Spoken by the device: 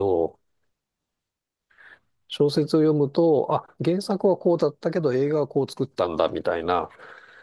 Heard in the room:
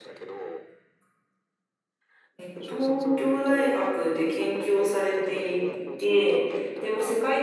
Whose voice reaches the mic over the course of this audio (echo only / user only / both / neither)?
both